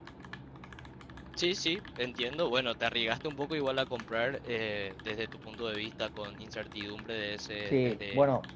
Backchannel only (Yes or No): No